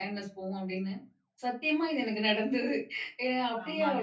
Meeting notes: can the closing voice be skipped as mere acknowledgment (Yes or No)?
No